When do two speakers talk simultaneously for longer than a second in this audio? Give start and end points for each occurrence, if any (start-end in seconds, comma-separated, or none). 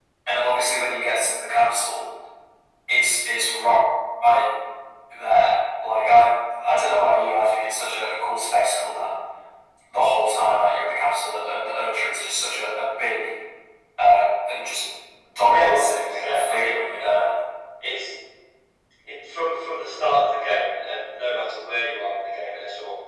15.5-17.3